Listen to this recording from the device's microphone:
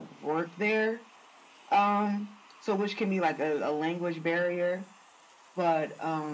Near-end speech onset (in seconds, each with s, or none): none